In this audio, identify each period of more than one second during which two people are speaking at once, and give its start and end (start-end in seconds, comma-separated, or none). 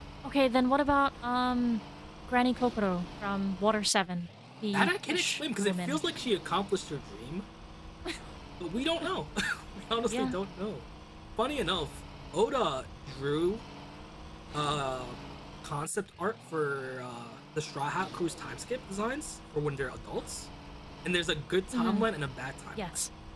4.7-6.0